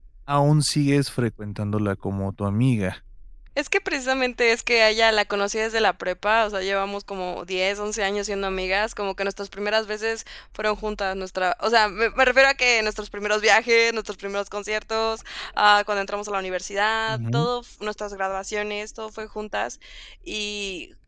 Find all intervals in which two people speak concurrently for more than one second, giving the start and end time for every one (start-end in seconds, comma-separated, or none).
none